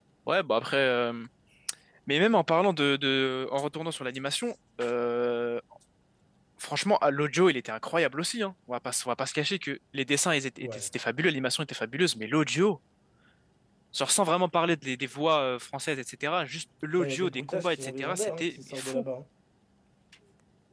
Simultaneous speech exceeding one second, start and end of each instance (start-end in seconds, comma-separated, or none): 17.0-19.0